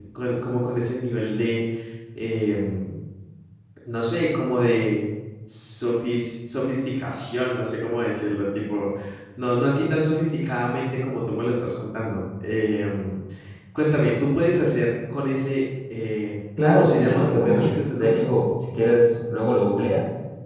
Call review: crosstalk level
present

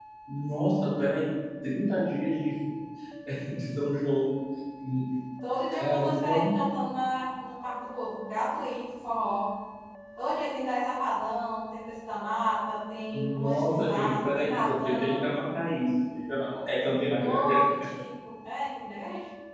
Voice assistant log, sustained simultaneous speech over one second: present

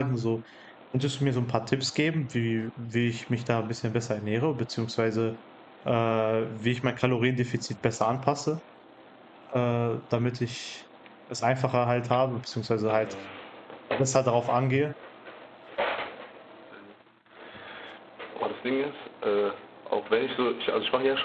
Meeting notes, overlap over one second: none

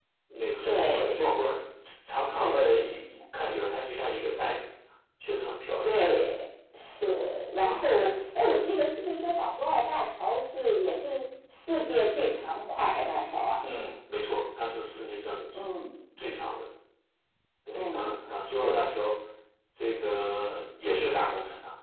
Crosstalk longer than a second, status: none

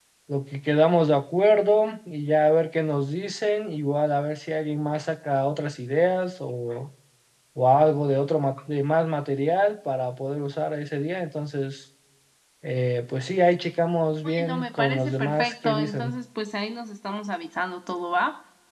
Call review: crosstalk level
present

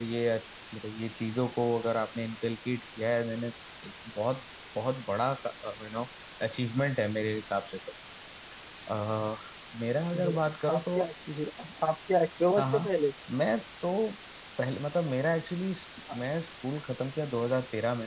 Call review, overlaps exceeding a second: none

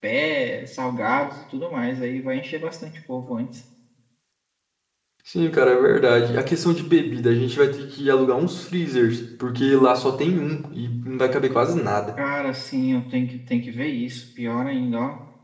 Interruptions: none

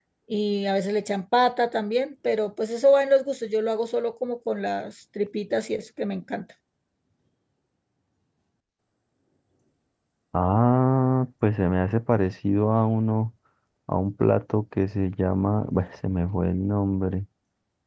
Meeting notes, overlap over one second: none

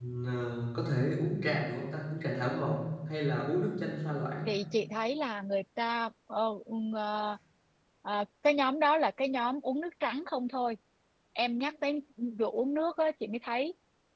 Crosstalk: none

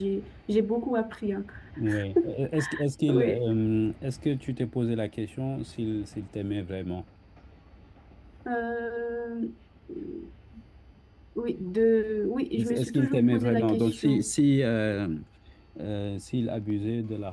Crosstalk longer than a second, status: present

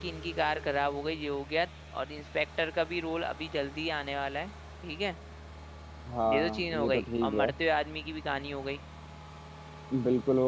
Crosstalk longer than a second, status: present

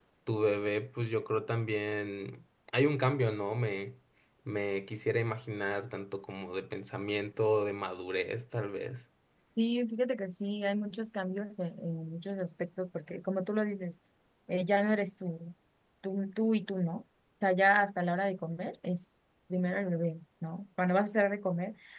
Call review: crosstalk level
none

